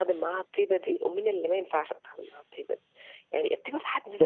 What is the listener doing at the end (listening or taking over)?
listening